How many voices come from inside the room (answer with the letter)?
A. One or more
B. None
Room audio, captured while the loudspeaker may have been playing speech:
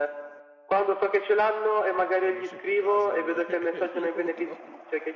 A